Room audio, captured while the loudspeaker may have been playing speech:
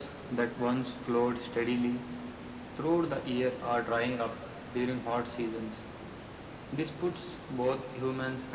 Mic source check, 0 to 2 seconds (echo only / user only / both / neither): echo only